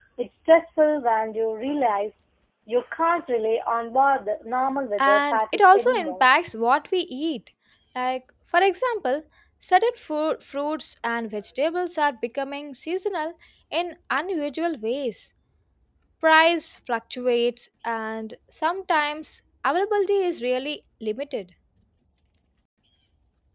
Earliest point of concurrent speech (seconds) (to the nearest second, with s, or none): 5 s